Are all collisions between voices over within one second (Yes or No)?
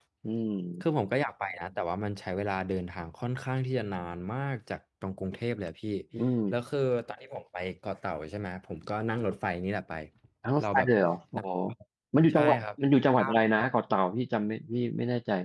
Yes